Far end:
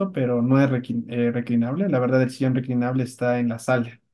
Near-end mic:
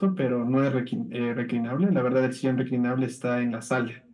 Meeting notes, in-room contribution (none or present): none